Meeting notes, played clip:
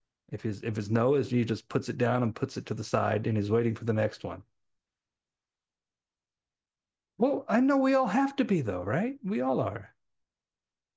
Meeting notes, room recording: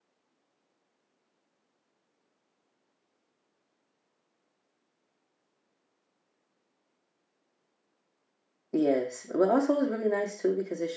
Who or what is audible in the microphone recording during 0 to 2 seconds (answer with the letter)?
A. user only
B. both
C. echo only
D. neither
D